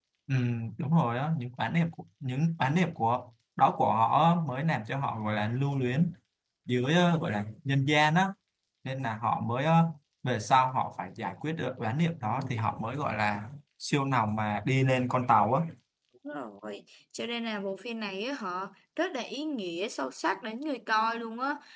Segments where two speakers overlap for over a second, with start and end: none

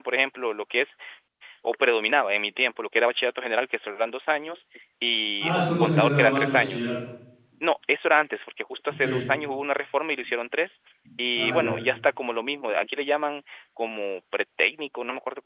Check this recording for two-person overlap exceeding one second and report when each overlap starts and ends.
5.4-6.9

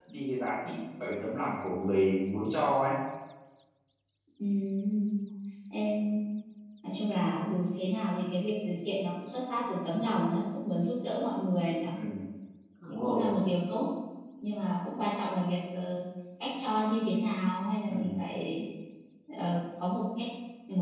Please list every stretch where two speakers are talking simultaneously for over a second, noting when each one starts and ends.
none

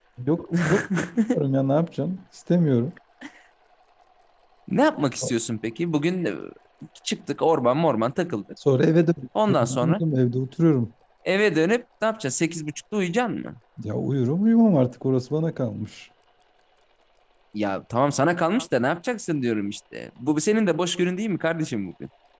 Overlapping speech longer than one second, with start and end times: none

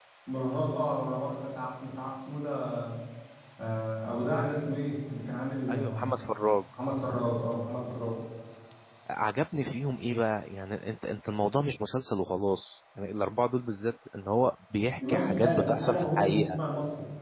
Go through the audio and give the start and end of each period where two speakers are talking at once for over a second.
15.1-16.4

